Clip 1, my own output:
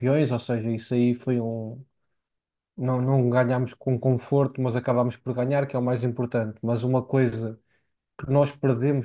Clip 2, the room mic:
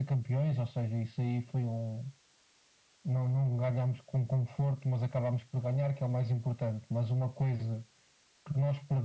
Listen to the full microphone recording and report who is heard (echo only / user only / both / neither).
echo only